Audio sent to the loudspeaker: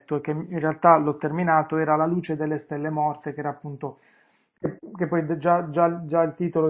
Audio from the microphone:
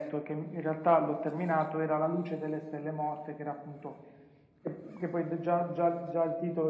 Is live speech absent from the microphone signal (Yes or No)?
Yes